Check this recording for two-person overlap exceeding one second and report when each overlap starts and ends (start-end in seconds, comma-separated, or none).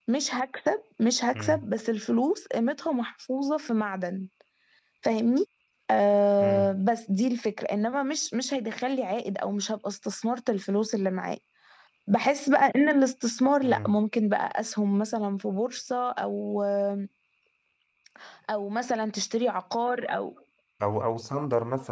none